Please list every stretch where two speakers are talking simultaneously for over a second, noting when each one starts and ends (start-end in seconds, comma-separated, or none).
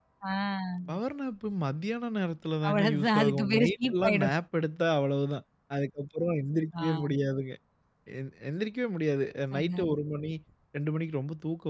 2.7-4.3